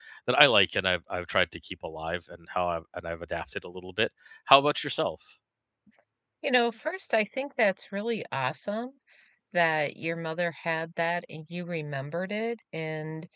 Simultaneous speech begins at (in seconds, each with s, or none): none